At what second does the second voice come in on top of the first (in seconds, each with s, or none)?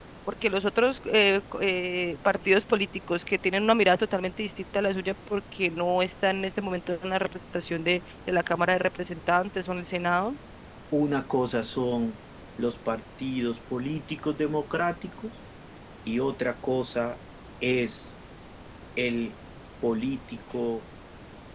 none